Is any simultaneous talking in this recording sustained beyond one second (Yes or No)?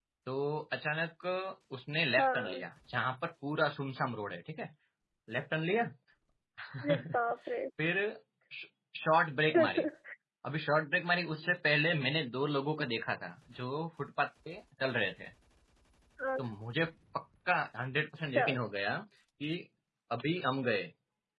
No